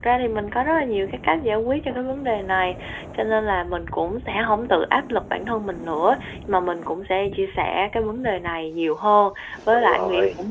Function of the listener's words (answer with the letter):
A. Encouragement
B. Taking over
A